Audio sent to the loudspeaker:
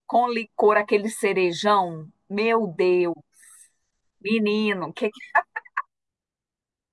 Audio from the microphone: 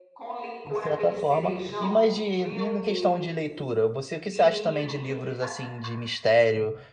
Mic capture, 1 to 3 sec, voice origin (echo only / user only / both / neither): both